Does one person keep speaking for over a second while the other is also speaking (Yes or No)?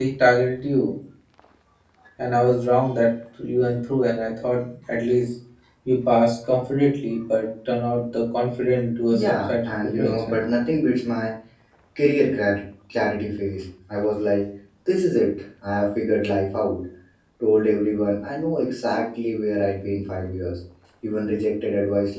Yes